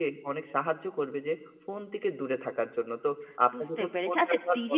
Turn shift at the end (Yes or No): Yes